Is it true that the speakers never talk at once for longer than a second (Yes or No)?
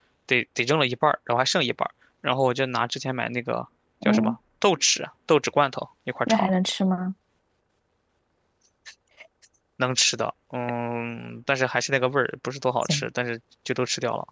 Yes